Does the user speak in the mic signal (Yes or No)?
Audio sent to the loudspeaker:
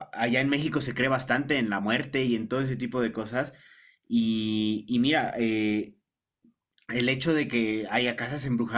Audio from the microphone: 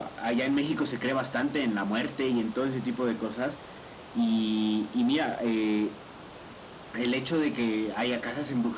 No